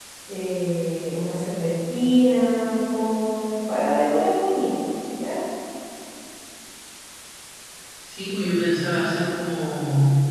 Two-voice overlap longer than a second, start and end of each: none

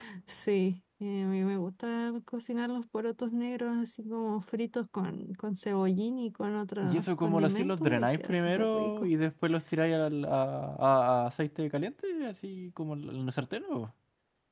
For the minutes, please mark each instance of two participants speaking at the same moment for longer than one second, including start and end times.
6.8-9.1

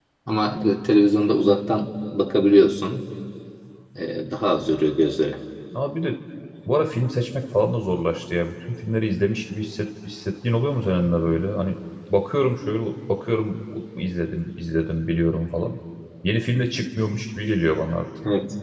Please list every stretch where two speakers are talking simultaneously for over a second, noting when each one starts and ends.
none

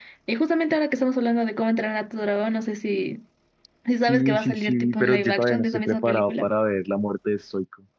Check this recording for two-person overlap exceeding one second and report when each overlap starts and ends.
4.1-6.5

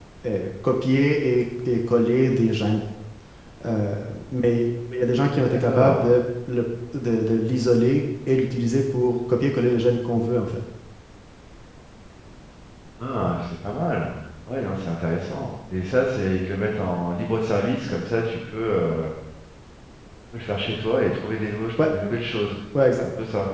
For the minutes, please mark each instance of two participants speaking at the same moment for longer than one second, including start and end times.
none

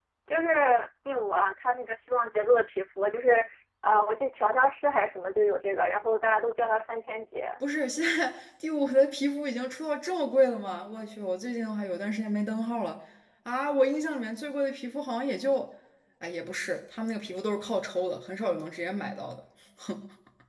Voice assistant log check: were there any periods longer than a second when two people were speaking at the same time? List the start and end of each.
none

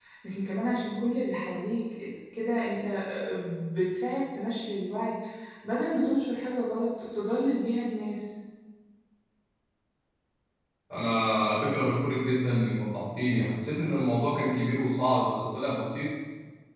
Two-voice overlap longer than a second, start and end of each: none

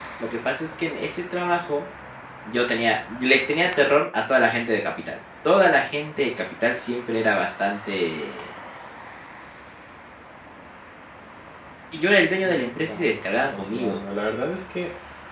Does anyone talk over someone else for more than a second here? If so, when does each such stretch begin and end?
12.4-14.0

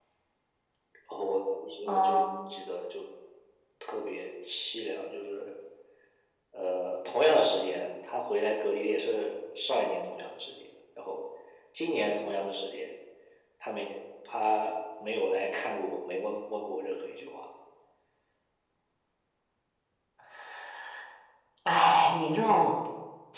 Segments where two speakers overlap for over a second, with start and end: none

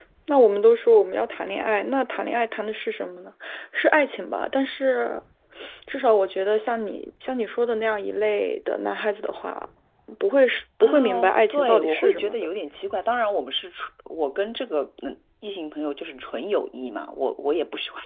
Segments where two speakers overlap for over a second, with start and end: 10.8-12.4

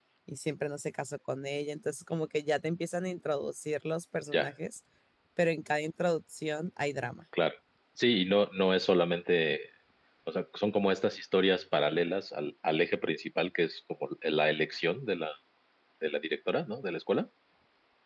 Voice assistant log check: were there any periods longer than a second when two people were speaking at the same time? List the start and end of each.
none

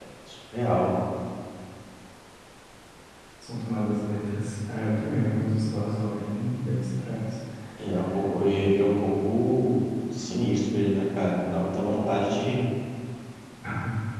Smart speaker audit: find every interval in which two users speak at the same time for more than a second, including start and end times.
none

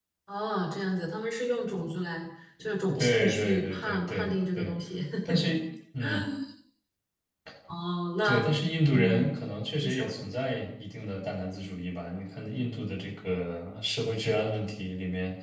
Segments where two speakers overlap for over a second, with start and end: 3.0-4.7

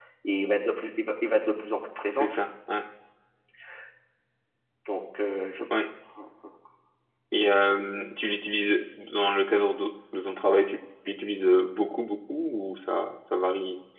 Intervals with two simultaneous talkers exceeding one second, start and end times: none

